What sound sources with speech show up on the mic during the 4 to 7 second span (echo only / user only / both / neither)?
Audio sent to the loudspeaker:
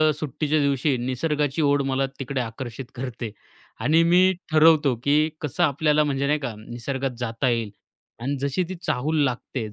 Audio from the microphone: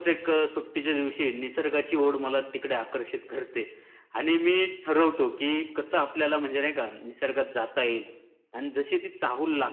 echo only